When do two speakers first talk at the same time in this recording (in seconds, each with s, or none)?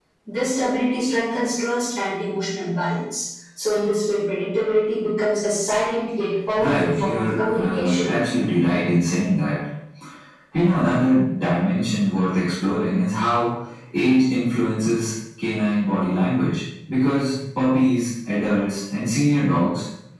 6.6 s